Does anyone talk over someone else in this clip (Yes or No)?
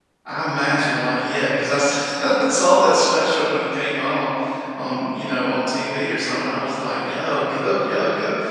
No